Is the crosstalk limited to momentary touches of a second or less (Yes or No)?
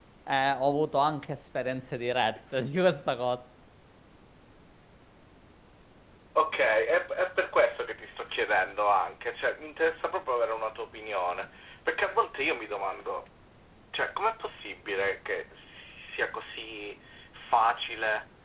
Yes